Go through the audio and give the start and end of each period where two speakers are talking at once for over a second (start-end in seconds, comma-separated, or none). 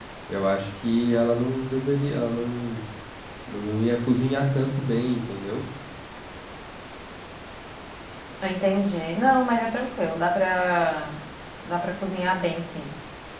none